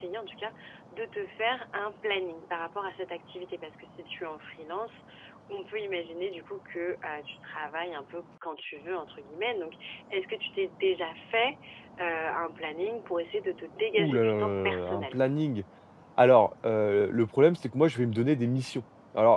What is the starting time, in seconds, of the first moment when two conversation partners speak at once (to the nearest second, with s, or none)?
14 s